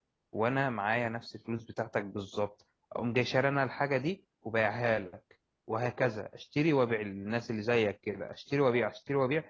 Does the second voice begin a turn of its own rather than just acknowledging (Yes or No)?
No